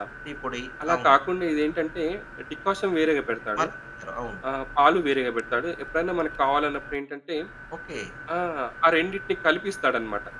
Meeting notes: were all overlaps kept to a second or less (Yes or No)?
Yes